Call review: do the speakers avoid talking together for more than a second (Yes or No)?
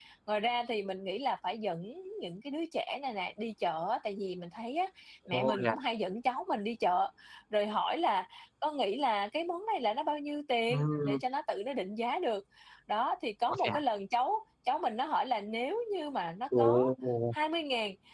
Yes